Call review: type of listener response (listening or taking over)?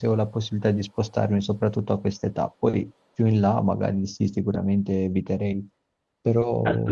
taking over